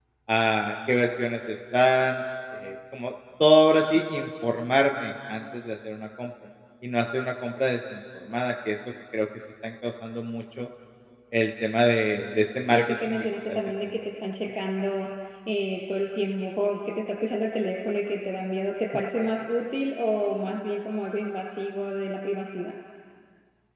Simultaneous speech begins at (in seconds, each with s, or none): 12.7 s